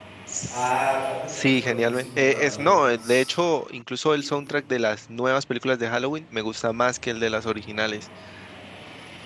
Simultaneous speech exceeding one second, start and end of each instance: 1.4-2.7

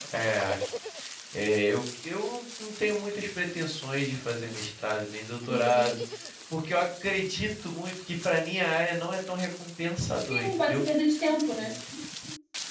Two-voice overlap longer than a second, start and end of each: none

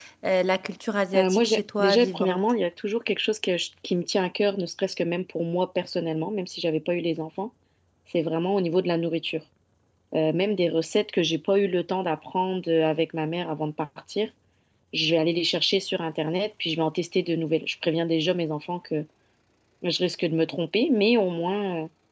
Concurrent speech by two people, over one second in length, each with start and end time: 1.2-2.4

